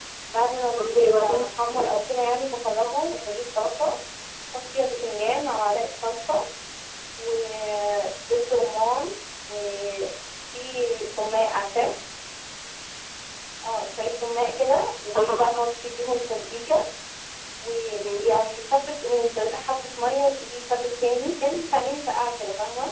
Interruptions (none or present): present